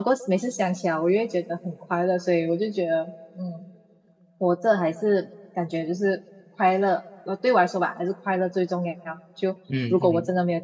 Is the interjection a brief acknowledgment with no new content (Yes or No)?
Yes